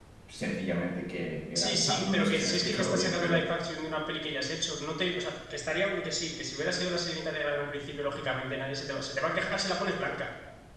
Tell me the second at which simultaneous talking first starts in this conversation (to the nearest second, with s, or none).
2 s